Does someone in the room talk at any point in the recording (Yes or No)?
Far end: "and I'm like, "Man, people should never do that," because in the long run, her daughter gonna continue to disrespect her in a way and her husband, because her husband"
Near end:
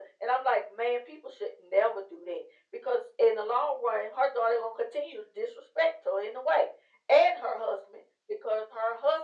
No